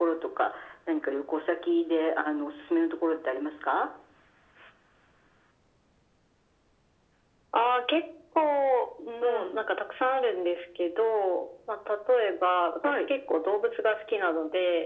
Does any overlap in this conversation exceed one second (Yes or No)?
No